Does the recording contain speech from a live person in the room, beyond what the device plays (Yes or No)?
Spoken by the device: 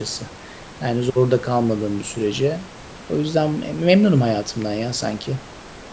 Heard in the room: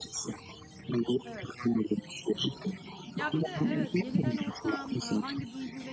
Yes